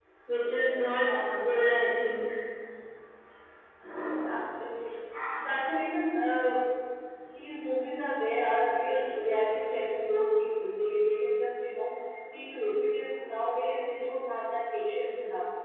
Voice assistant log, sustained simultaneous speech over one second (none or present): none